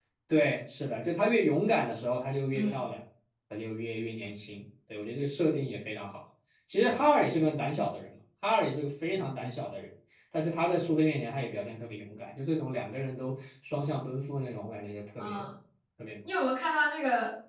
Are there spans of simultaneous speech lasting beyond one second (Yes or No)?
No